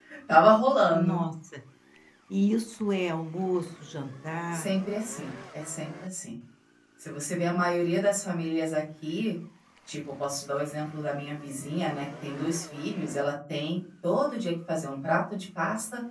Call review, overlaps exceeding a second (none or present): none